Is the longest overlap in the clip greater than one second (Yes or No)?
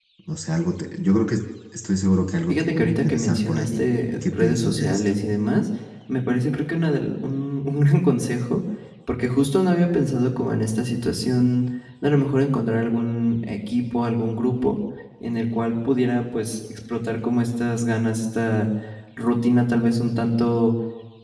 Yes